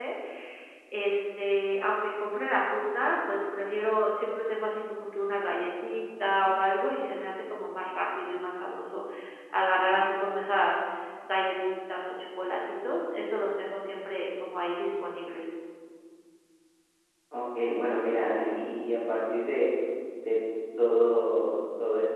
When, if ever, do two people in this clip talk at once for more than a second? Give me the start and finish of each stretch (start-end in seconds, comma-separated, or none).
none